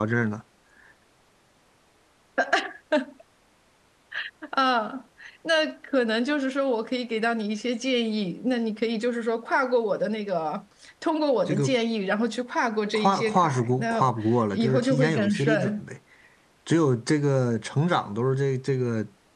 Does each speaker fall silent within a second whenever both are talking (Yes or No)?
No